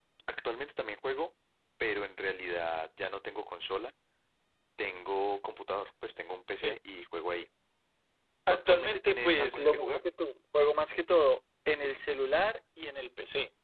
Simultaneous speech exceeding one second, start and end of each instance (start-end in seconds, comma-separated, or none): 8.5-10.0